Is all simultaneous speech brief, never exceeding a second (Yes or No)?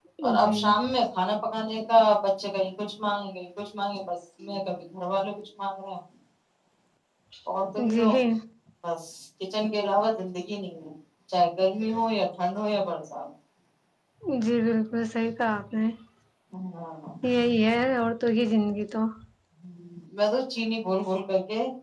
Yes